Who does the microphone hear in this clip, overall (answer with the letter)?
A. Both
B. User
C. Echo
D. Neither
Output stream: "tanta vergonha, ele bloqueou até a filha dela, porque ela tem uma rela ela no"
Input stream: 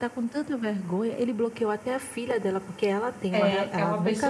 A